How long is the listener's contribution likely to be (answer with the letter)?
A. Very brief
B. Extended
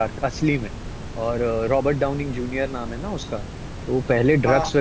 A